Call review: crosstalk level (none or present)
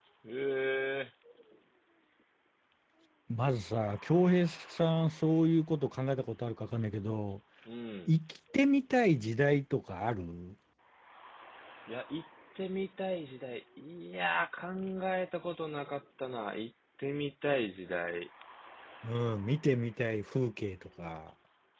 none